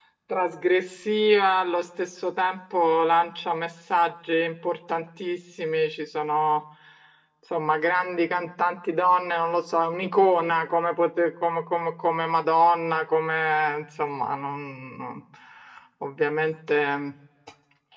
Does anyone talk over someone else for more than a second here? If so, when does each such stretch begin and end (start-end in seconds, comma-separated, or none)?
none